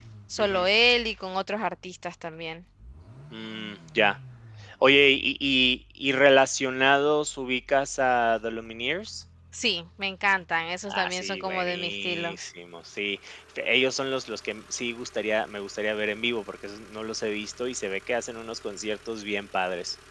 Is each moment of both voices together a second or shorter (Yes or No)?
No